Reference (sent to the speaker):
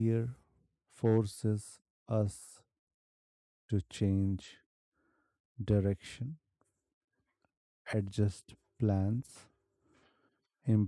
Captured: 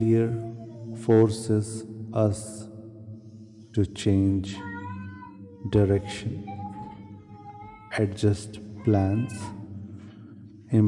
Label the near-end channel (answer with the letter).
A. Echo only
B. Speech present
A